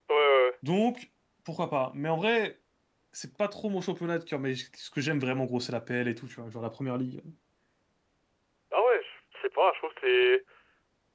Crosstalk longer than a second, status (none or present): none